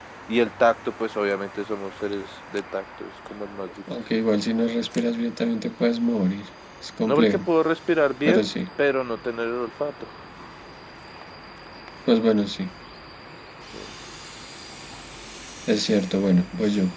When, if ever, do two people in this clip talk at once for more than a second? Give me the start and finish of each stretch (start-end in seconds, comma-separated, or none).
none